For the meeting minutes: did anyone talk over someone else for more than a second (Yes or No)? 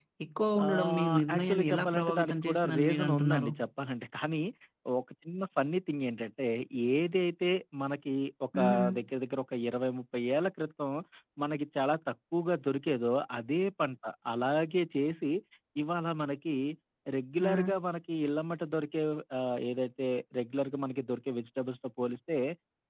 Yes